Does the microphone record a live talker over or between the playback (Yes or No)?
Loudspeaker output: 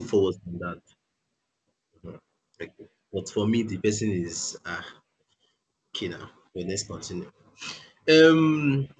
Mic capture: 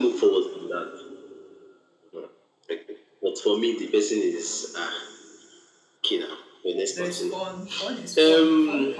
Yes